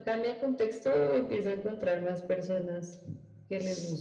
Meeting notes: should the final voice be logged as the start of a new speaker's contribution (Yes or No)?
Yes